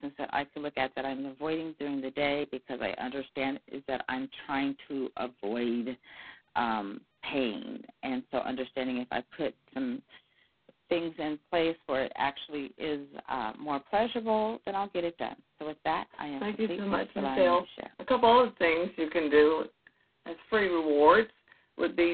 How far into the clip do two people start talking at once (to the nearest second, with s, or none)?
16 s